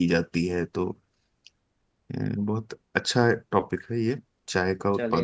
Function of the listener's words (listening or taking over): taking over